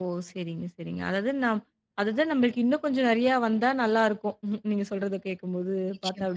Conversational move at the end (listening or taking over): listening